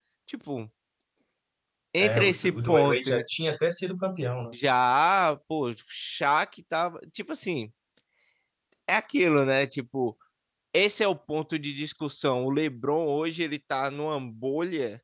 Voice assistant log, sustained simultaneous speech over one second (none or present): present